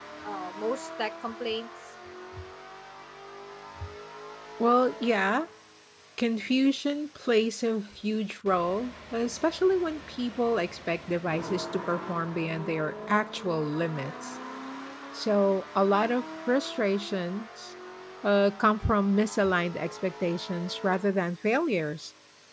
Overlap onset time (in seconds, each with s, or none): none